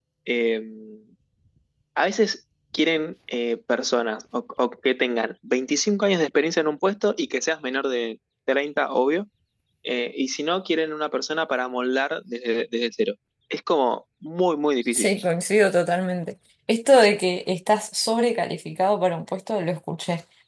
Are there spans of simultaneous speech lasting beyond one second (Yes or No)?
No